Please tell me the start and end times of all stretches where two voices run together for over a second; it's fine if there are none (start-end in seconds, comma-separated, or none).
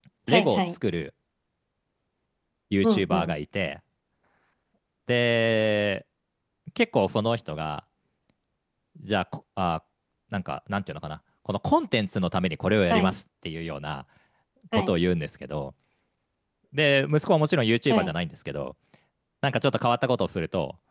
none